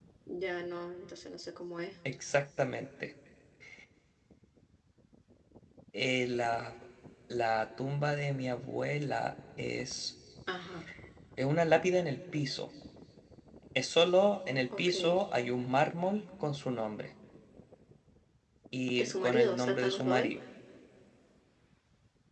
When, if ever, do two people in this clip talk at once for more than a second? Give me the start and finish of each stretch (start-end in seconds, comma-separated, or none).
19.0-20.4